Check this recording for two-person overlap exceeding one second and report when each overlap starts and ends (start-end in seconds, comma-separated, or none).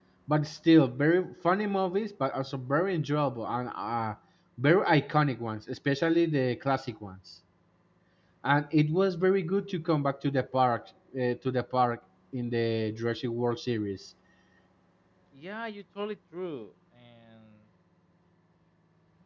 none